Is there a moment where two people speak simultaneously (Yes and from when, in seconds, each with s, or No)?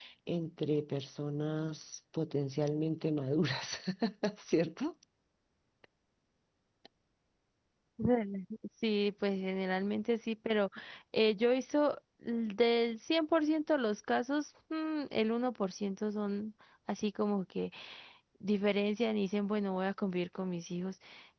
No